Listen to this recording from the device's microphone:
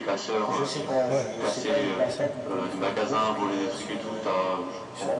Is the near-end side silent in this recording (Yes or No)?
No